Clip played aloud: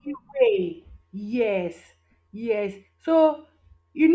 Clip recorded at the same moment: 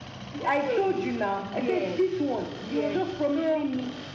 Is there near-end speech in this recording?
Yes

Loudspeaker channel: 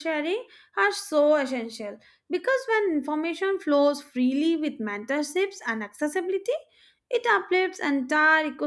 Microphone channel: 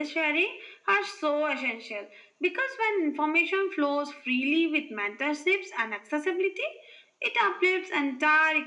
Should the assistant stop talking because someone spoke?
No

